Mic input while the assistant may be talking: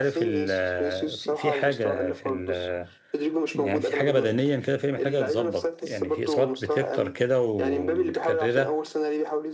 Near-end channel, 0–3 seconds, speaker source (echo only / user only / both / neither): both